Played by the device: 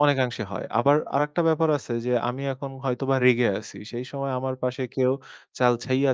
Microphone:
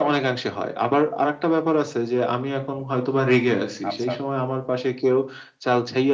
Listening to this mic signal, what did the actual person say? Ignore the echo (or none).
আচ্ছা, আচ্ছা।